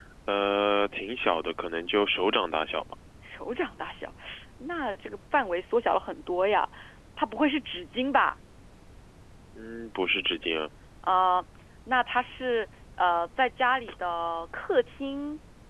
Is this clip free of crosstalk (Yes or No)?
Yes